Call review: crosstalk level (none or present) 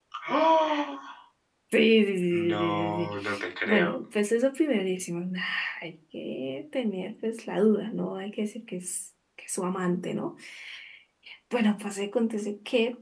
present